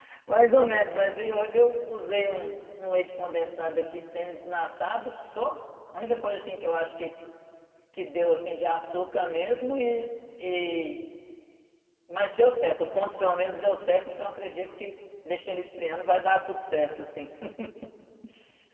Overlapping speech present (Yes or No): No